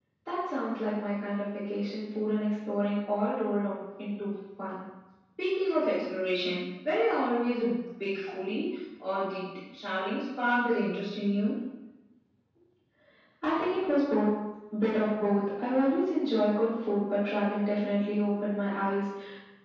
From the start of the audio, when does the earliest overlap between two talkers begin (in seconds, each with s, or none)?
none